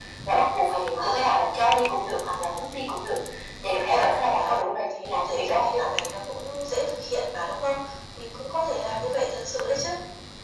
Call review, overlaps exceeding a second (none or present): present